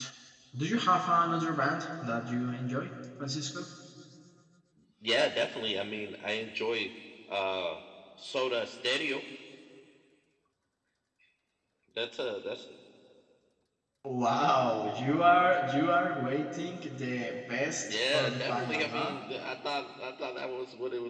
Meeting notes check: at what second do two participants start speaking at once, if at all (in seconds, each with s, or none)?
17.8 s